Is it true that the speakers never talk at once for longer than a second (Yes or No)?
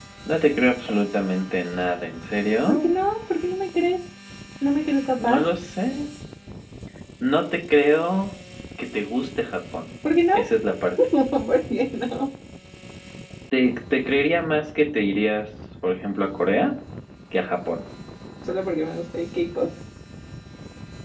Yes